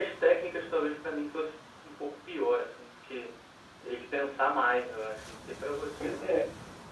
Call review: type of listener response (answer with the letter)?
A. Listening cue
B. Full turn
B